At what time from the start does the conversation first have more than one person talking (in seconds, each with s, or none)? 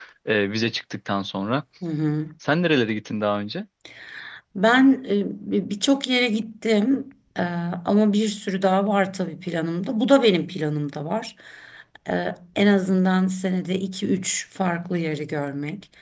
none